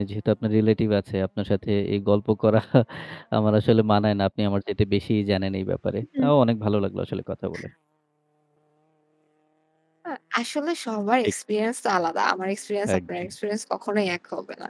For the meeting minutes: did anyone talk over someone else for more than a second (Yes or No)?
No